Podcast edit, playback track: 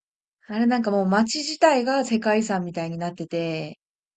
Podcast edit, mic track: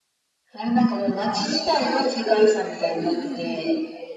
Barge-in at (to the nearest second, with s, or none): 3 s